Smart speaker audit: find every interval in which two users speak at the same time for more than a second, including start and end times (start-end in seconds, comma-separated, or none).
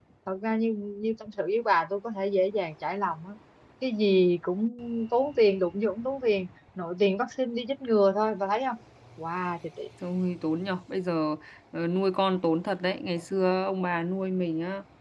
none